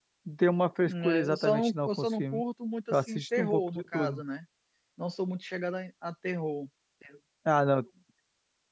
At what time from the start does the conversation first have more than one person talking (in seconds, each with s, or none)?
0.8 s